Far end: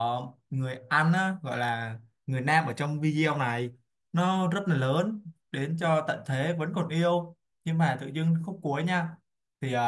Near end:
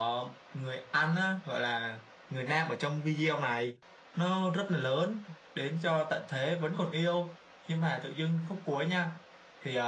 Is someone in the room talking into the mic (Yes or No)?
No